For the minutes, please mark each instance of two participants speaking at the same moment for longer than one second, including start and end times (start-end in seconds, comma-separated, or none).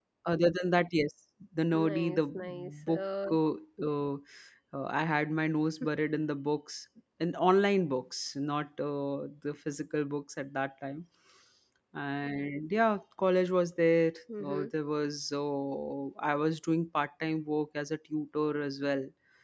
1.7-3.3